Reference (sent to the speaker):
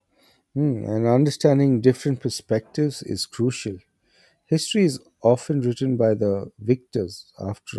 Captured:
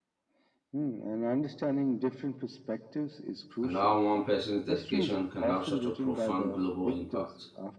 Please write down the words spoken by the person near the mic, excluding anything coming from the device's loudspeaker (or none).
and how one person's dedication can have such a profound global impact.